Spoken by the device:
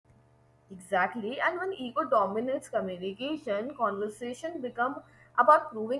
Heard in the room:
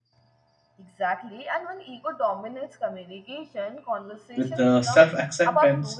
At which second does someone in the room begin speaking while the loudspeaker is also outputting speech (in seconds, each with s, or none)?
4.3 s